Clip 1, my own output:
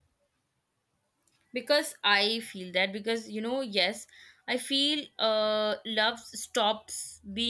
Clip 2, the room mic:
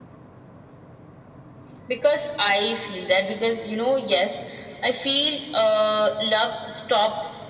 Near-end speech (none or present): none